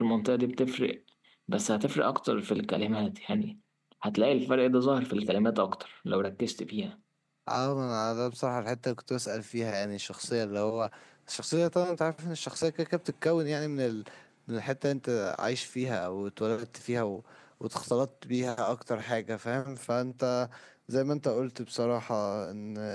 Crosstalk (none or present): none